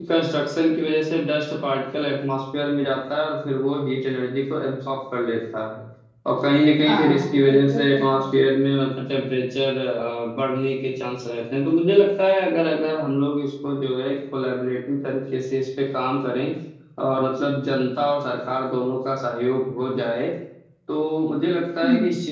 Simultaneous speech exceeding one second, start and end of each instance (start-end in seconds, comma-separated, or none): 6.8-8.3